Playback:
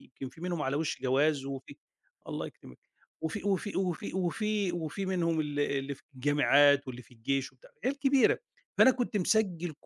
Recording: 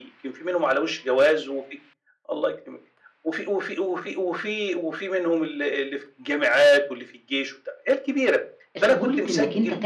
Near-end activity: present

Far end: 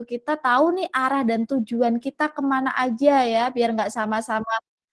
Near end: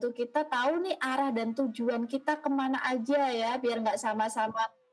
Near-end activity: none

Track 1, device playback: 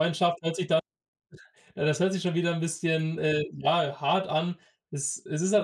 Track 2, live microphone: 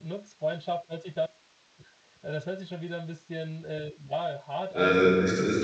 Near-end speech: present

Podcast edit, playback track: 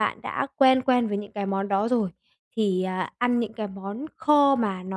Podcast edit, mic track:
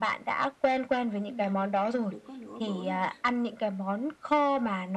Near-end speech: present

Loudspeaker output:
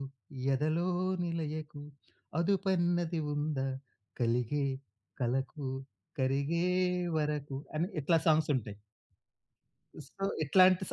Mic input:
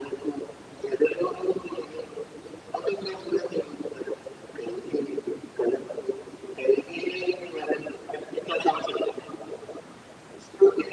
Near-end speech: none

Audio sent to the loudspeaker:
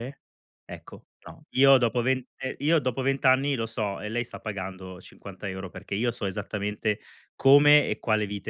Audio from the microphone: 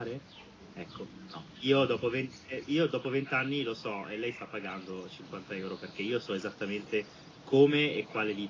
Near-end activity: none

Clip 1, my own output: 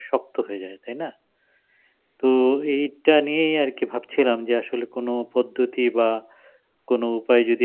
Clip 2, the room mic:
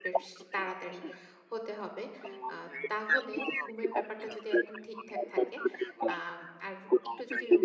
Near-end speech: present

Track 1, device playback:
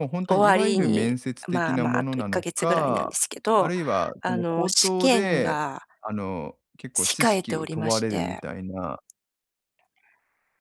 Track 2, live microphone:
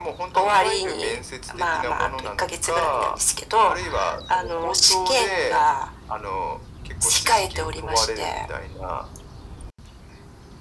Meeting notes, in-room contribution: none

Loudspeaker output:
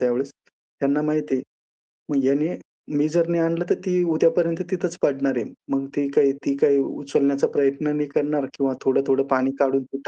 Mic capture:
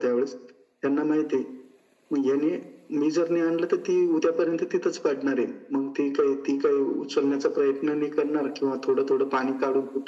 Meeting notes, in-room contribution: none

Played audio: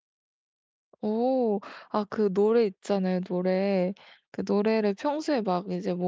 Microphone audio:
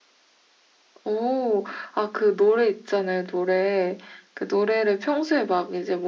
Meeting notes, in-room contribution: none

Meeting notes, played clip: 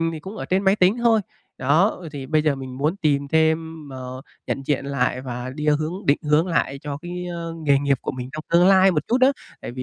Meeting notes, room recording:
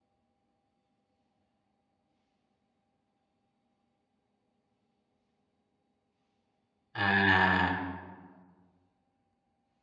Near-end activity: present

